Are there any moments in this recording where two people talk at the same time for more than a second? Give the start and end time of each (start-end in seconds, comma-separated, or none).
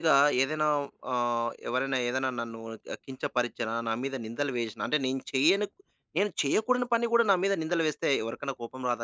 none